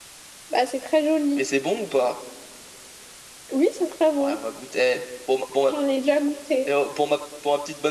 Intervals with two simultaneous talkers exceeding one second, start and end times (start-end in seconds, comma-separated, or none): none